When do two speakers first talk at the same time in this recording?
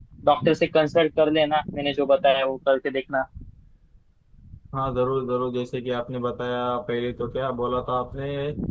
none

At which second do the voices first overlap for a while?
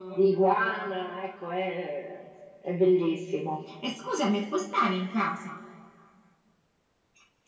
none

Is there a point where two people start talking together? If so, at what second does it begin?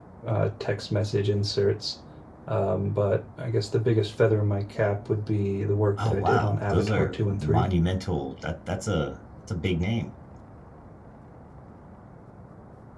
6.0 s

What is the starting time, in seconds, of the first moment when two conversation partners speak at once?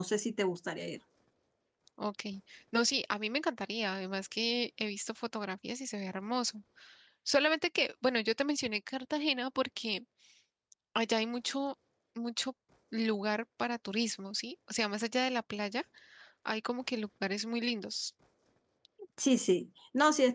none

